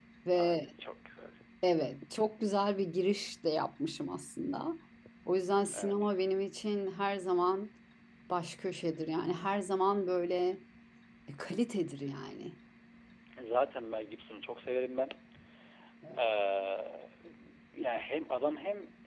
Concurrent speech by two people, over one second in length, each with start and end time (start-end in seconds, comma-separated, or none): none